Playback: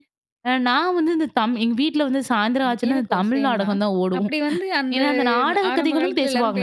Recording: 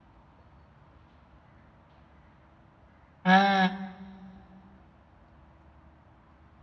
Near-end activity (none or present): present